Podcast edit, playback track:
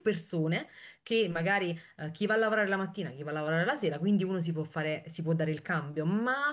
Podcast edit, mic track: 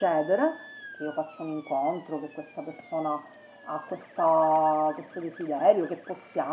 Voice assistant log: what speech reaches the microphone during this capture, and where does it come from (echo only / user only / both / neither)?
user only